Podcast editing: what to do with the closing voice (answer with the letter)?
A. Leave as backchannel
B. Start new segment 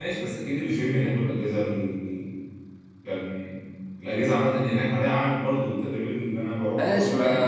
B